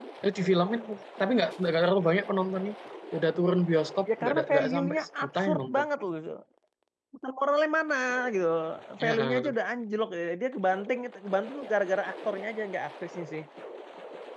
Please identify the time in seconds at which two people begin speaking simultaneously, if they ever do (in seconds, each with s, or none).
4.2 s